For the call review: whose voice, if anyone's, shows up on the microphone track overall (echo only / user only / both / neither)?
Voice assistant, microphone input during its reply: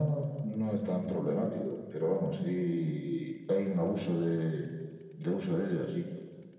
echo only